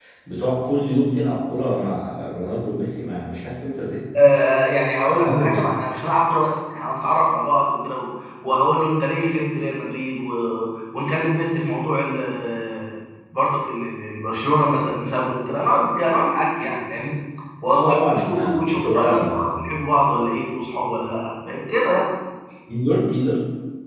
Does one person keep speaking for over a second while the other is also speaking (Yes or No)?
Yes